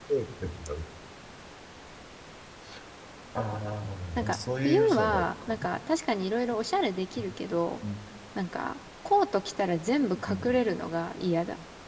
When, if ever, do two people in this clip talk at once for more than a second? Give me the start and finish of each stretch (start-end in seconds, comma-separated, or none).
4.2-5.6